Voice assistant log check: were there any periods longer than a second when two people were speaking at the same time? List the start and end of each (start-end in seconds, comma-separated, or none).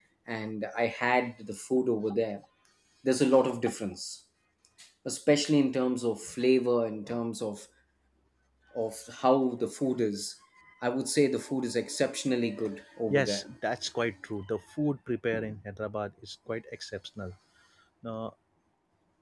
none